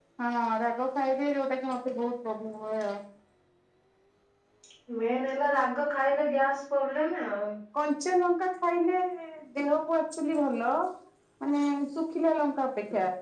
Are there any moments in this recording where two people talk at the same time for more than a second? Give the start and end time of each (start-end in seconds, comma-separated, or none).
none